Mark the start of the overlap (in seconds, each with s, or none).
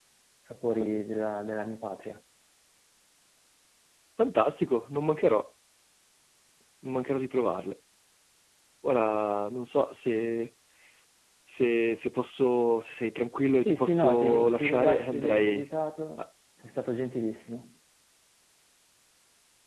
13.6 s